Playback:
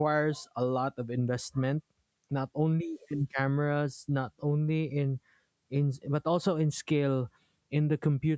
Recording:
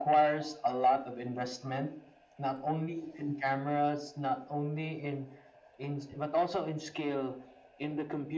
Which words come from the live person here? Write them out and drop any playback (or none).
none